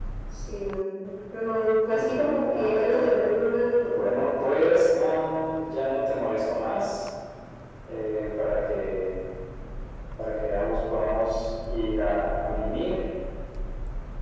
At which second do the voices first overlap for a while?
1.9 s

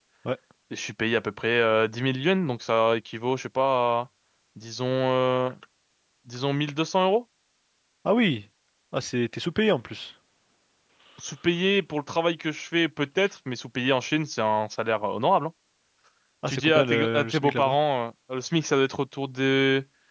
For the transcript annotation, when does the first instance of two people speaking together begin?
16.5 s

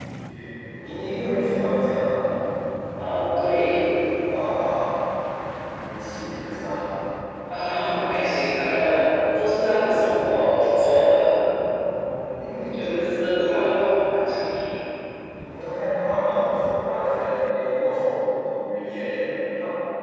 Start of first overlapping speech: none

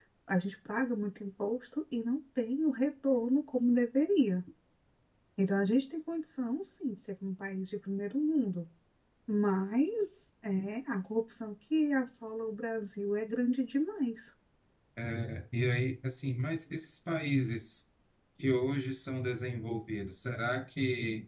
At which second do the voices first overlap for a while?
none

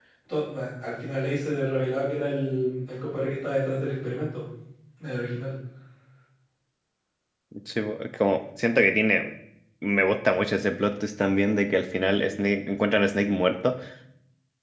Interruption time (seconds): none

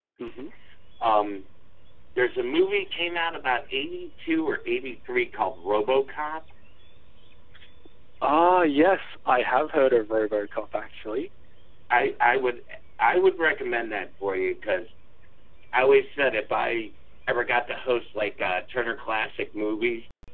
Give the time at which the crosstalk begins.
none

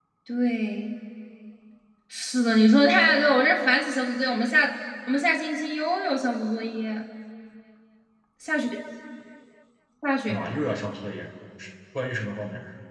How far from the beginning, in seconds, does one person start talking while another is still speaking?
none

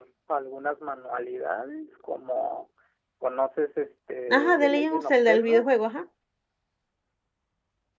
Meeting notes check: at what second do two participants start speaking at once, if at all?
4.3 s

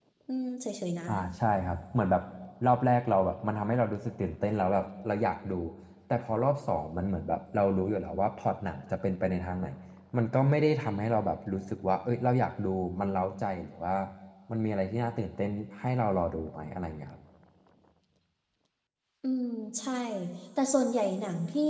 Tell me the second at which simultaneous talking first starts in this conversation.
none

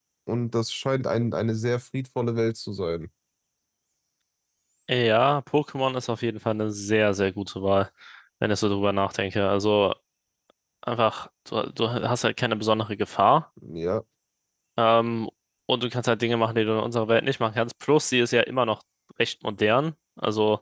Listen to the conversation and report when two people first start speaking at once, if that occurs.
none

